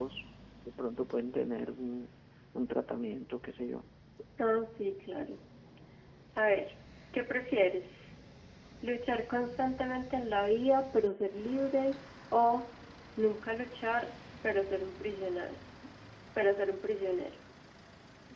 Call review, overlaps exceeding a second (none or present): none